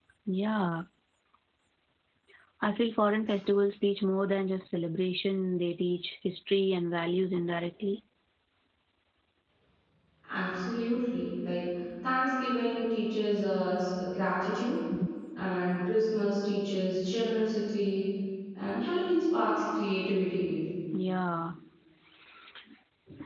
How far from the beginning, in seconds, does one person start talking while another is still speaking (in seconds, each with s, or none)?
none